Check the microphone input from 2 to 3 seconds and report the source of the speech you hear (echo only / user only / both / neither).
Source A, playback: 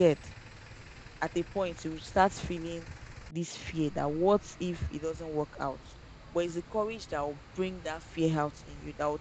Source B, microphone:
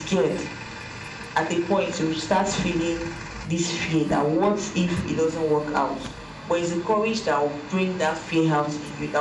echo only